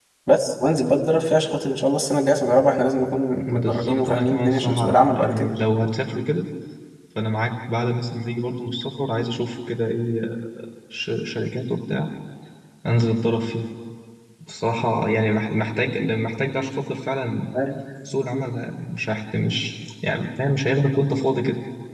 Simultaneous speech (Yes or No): Yes